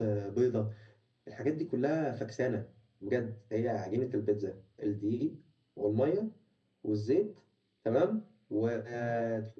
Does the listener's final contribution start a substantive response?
No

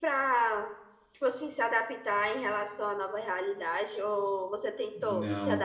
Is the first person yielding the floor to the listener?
Yes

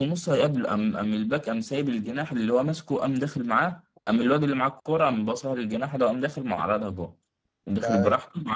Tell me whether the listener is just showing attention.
Yes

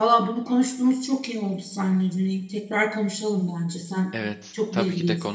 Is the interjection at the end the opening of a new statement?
Yes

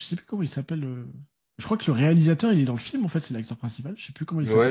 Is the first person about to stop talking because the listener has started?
Yes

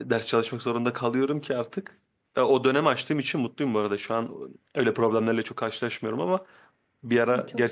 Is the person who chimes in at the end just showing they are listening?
Yes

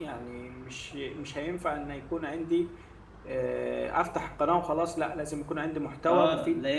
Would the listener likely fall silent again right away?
No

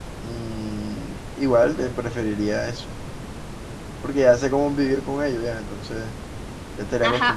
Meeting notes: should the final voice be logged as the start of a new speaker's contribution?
Yes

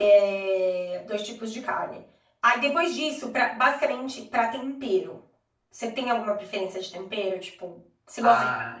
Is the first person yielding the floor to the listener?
Yes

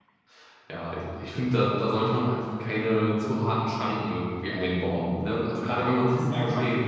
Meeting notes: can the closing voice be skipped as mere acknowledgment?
No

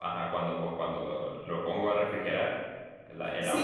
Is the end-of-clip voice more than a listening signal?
Yes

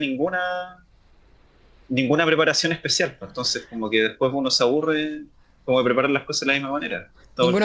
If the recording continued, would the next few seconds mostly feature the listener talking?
Yes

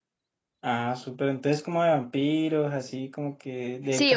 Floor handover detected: Yes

